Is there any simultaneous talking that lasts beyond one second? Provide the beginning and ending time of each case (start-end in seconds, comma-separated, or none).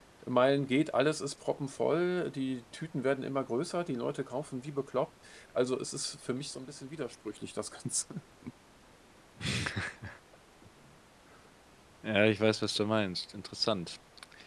none